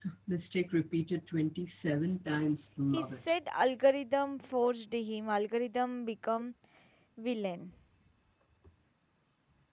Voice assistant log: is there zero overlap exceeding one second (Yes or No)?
Yes